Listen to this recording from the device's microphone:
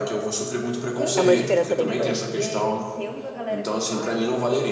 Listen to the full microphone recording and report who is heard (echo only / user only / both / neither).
both